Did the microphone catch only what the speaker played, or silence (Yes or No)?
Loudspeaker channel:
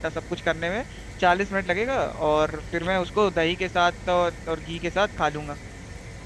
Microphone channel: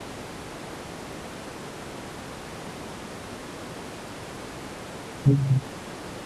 No